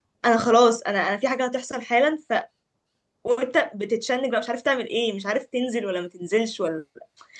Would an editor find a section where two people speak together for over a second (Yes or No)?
No